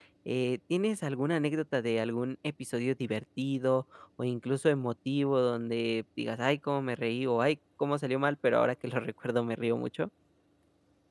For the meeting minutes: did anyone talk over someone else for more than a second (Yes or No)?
No